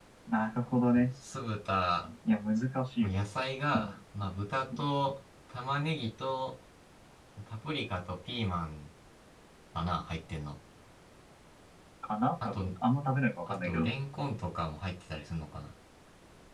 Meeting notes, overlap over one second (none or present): none